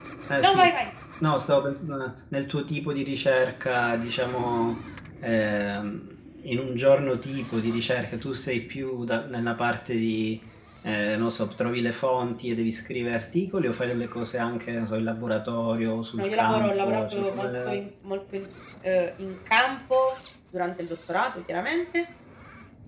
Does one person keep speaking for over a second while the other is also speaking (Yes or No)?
Yes